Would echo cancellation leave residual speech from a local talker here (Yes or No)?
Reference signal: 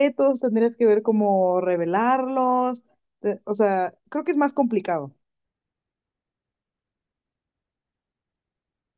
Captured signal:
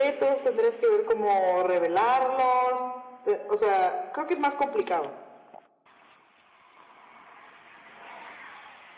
No